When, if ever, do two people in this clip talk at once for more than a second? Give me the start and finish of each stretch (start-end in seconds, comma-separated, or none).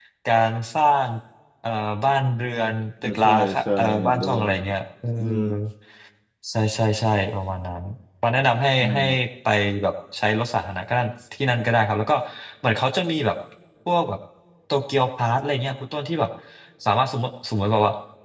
3.0-4.8